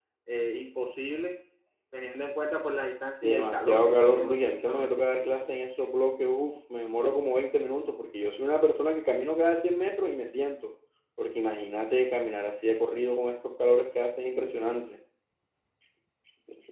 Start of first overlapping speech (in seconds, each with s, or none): 3.2 s